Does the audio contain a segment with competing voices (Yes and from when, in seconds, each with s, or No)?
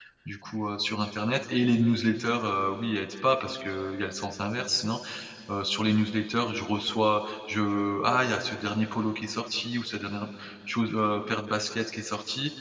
No